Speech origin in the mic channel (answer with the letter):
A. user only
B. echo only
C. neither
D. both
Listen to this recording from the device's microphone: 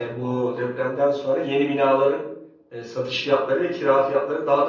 A